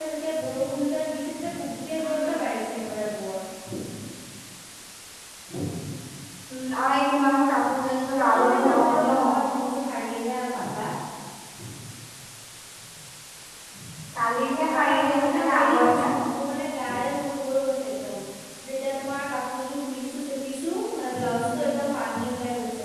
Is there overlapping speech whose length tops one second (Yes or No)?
Yes